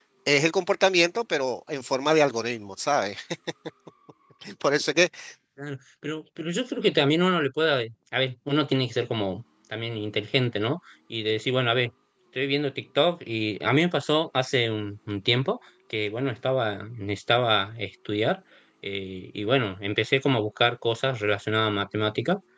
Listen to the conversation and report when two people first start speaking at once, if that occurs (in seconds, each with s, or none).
none